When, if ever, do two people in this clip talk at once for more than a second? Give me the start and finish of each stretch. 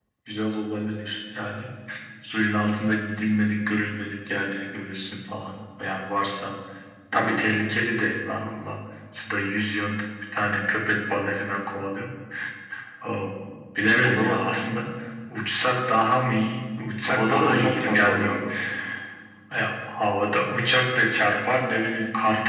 17.1-18.3

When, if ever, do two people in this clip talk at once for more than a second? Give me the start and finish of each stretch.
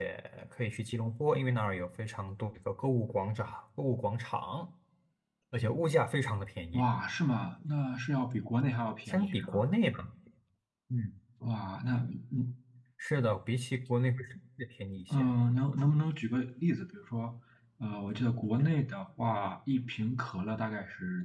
none

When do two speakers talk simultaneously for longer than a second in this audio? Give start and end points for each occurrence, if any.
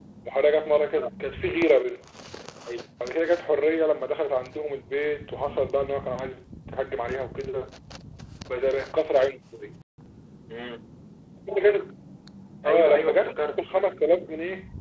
12.7-13.9

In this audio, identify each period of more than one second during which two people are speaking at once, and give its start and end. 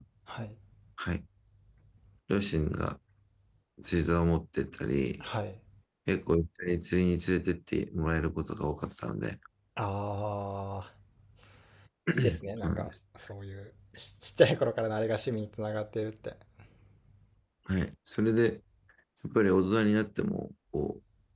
none

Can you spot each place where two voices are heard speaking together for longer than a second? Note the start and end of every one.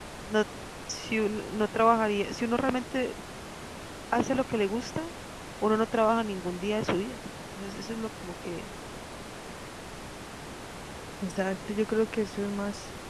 none

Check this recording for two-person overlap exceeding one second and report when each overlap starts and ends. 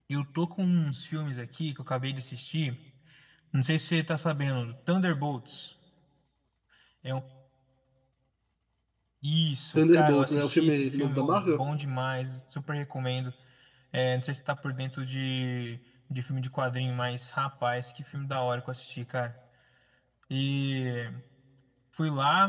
9.8-11.6

